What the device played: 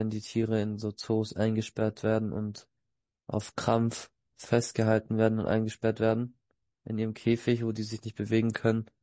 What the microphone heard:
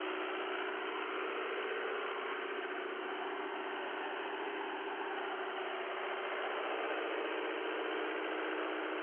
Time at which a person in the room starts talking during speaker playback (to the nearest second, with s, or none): none